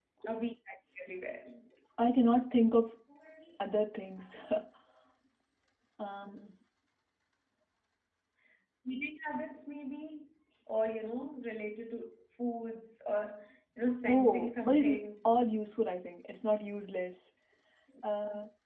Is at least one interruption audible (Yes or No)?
Yes